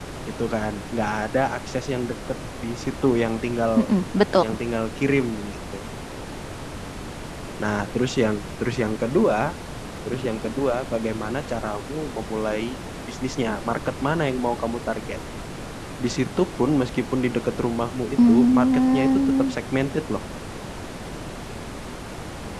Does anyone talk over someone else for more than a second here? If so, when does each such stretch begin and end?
18.2-19.5

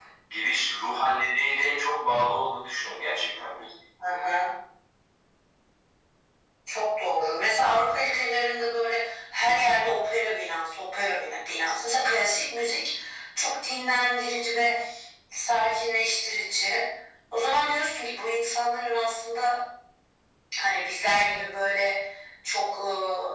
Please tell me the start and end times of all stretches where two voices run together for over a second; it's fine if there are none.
none

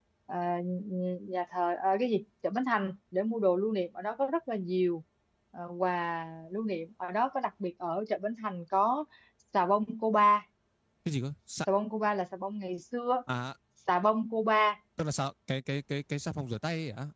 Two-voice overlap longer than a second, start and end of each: none

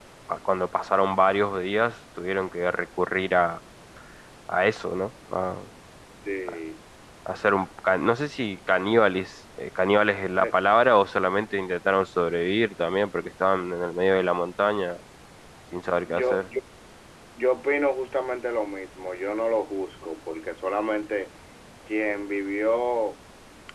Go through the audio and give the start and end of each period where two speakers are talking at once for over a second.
none

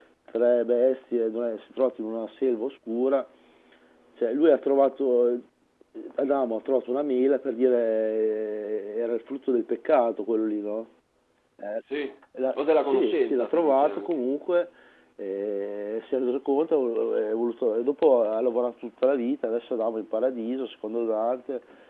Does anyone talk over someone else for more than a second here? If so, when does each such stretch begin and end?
12.6-14.1

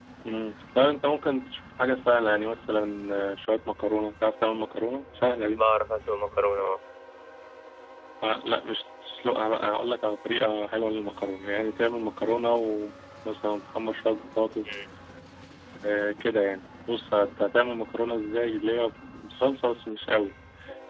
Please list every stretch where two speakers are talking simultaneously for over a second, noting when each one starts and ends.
none

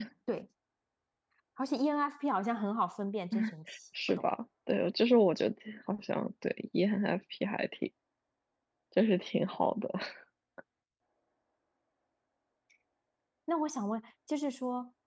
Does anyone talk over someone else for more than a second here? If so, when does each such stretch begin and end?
none

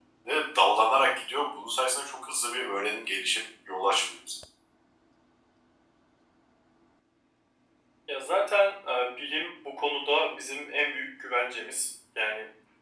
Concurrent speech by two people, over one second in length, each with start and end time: none

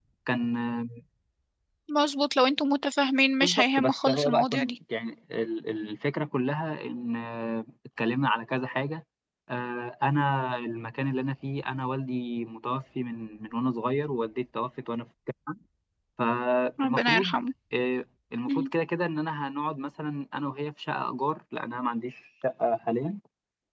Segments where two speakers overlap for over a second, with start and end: 3.4-4.8

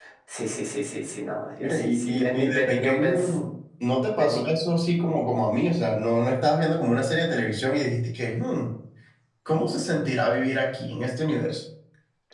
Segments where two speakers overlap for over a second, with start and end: 1.6-3.4

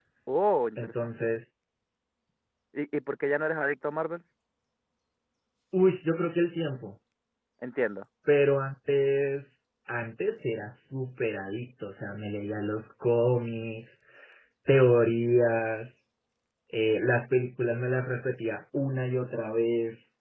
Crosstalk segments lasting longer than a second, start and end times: none

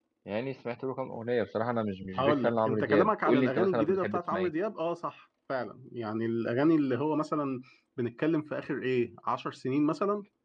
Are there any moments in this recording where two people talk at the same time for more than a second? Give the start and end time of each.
2.2-4.5

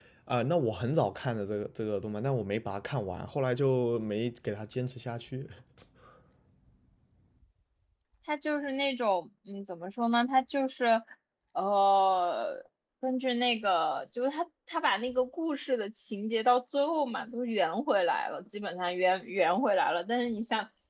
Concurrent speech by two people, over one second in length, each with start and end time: none

